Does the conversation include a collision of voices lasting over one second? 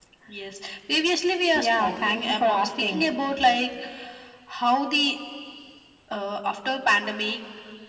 Yes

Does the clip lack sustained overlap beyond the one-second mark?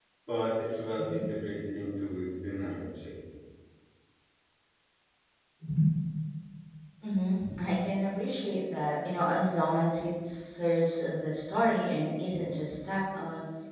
Yes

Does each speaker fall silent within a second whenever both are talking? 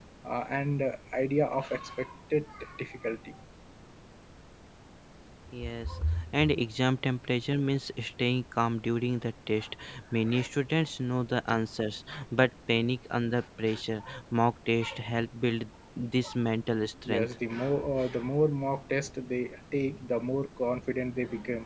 Yes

